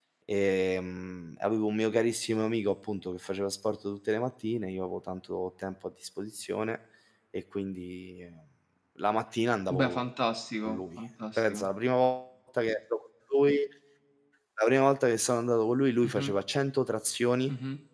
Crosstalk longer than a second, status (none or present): none